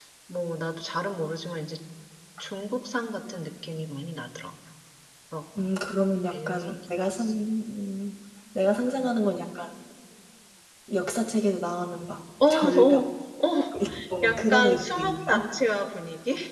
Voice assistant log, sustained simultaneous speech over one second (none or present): present